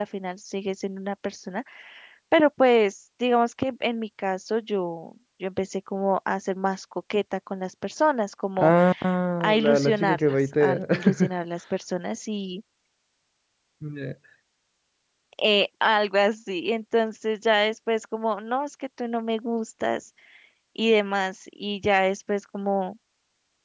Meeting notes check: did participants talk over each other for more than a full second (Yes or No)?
Yes